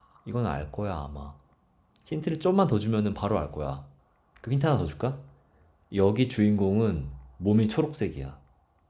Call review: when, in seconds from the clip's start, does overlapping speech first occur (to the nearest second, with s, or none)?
none